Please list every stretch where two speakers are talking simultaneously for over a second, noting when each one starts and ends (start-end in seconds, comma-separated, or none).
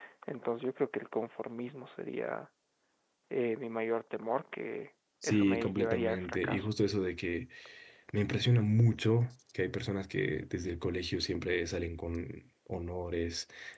5.2-6.7